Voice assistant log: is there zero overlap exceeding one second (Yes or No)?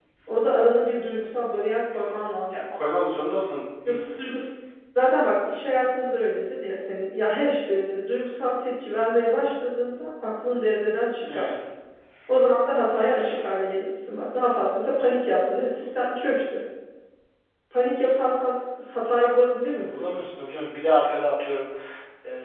Yes